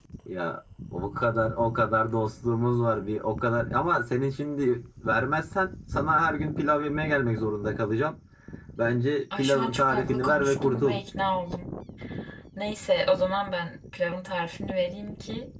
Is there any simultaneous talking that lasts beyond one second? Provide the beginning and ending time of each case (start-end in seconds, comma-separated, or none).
9.4-11.0